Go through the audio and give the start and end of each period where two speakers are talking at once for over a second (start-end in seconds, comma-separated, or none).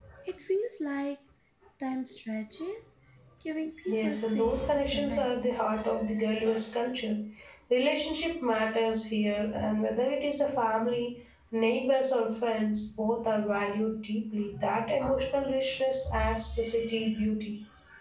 3.9-5.3